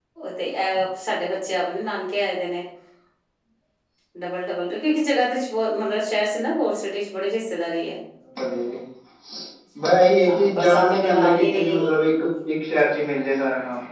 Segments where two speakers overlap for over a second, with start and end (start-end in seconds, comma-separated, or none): 10.2-12.1